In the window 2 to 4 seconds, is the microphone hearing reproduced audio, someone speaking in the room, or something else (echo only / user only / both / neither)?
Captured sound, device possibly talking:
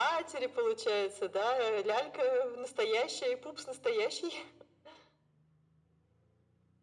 echo only